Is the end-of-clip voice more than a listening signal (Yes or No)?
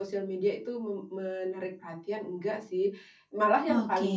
No